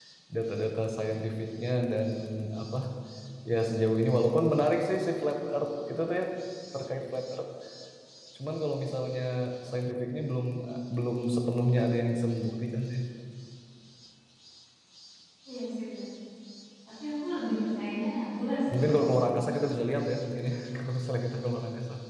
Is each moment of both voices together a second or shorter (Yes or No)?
Yes